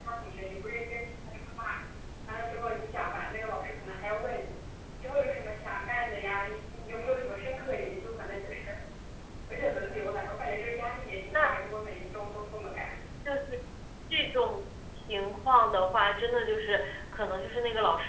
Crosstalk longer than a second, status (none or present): none